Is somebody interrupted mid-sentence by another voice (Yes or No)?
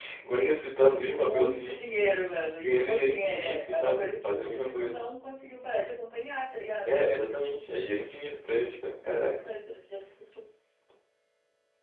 Yes